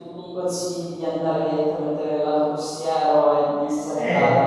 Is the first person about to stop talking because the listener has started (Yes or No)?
Yes